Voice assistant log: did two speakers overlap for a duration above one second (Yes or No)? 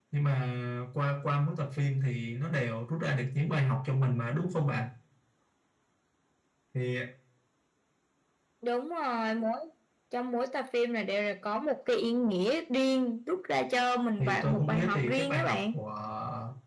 Yes